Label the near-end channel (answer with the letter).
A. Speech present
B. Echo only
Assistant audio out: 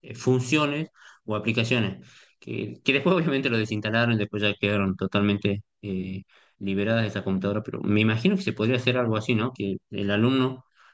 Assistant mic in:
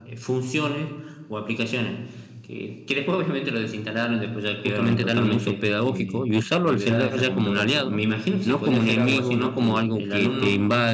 A